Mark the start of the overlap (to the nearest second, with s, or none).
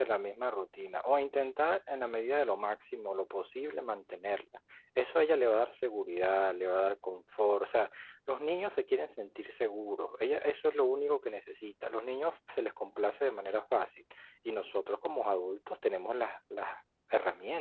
none